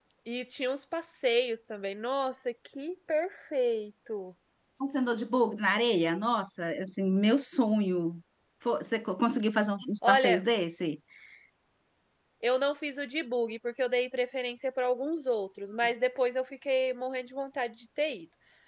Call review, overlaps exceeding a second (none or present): none